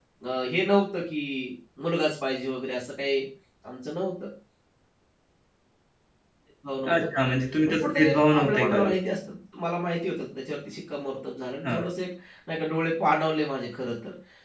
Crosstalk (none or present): present